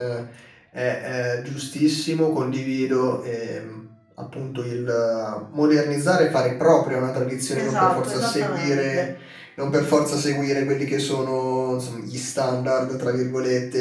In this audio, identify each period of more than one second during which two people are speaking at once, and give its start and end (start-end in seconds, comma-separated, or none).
7.6-9.0